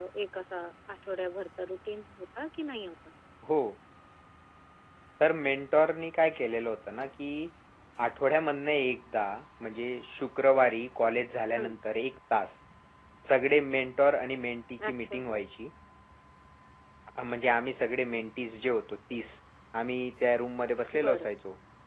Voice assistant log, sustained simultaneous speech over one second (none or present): none